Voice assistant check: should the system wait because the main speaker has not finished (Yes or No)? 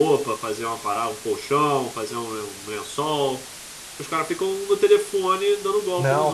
No